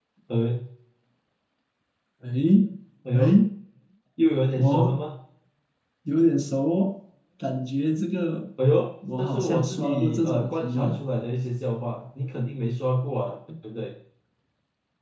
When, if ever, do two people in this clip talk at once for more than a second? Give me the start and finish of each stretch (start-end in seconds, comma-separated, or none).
9.2-11.0